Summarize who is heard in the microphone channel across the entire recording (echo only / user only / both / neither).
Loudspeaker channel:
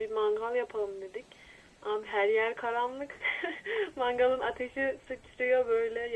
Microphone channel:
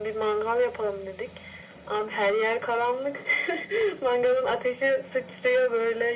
echo only